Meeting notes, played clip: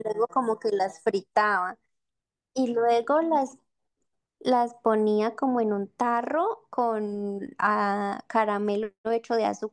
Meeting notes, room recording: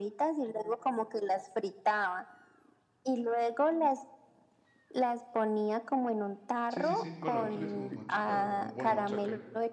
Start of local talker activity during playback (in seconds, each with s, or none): 6.7 s